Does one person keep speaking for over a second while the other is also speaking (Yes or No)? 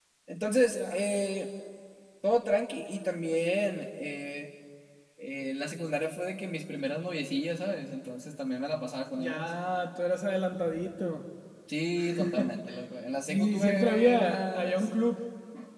Yes